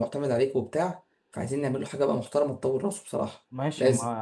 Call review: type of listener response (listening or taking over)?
taking over